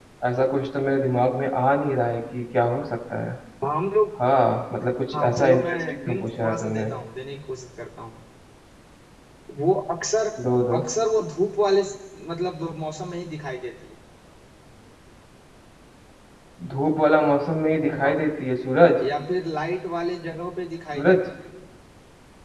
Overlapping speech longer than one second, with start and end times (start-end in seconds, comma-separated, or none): 5.1-6.9